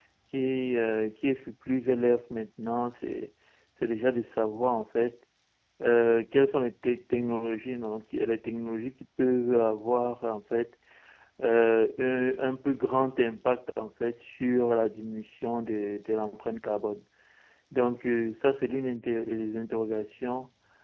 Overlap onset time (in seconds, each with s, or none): none